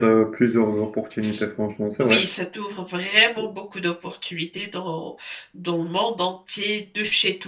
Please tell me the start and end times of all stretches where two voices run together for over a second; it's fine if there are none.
none

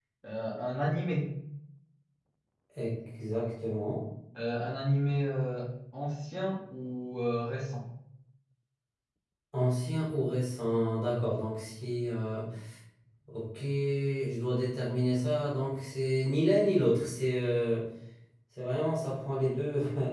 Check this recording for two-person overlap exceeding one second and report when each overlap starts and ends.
none

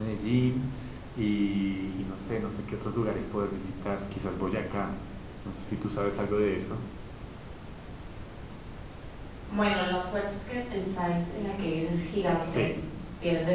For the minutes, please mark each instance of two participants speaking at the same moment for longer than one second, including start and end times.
none

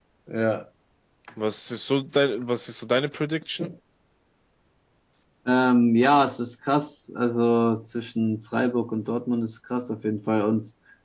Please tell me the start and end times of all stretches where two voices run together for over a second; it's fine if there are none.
none

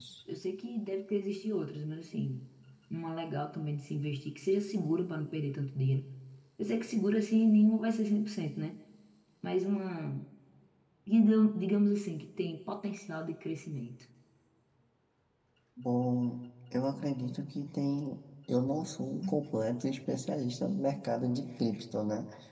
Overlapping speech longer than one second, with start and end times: none

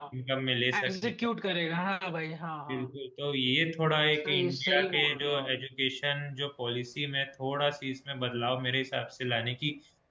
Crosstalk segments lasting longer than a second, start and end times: 4.2-5.5

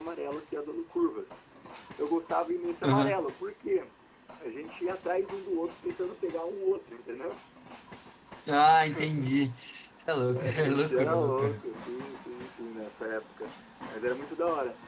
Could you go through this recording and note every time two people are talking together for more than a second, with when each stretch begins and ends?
10.3-11.6

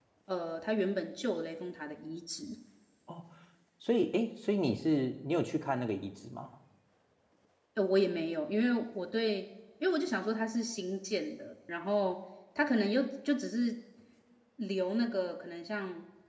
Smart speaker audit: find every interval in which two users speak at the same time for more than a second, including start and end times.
none

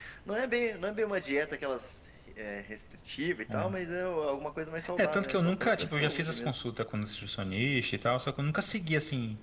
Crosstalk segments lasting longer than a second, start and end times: 5.0-6.5

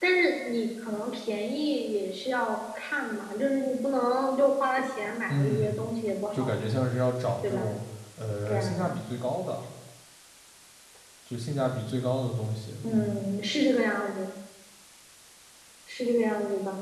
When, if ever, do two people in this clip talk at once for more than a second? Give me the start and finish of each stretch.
none

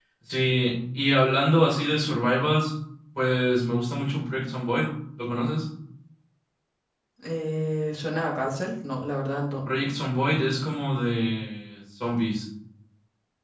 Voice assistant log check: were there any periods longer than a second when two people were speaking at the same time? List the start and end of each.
none

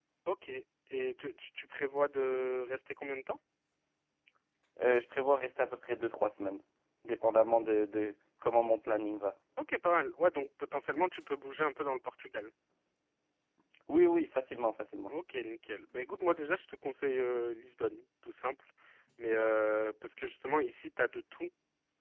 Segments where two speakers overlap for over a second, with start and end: none

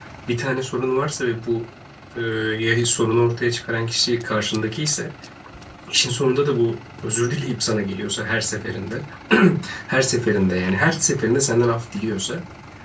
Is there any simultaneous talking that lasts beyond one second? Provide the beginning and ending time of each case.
none

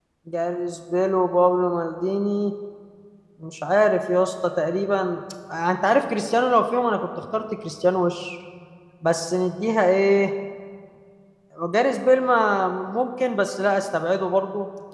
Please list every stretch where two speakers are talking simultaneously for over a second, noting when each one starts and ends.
none

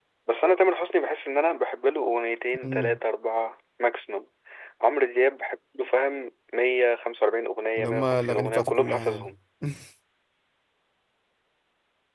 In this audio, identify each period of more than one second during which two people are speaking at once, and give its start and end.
7.8-9.3

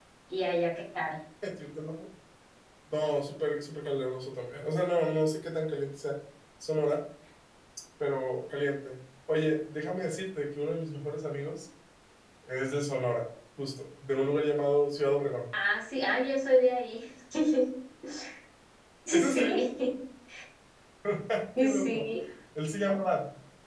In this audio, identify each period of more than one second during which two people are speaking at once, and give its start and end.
none

